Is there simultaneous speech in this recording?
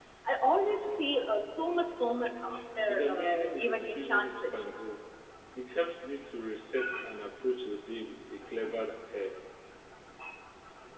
Yes, from 2.9 s

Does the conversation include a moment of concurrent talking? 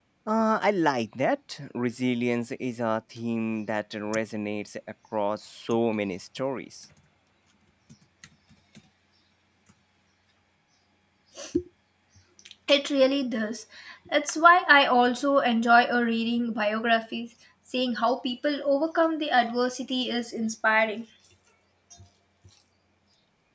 No

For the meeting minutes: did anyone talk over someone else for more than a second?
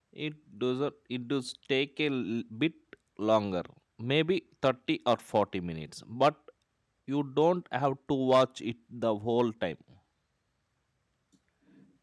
No

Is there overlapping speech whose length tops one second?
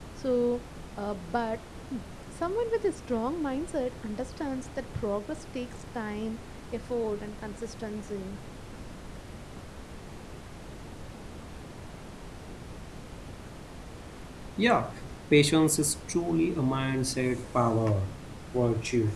No

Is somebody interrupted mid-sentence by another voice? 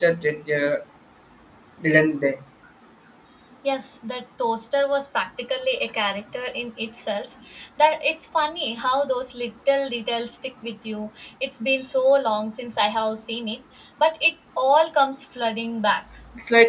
No

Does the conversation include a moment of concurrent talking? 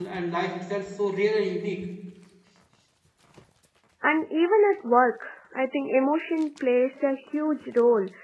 No

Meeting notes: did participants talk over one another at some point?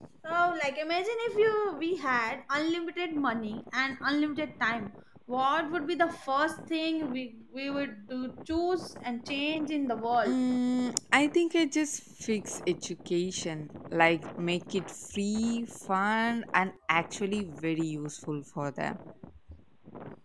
No

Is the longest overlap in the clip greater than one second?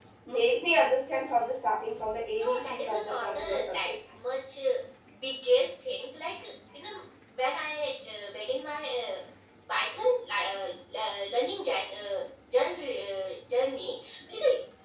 Yes, from 2.3 s

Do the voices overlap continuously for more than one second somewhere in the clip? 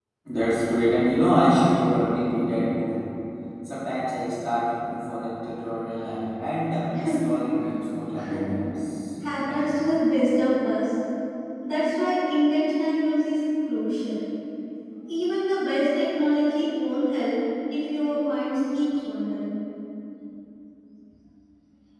No

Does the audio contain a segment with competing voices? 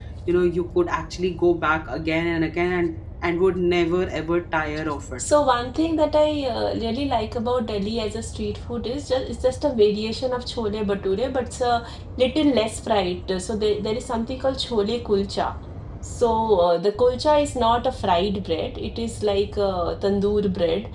No

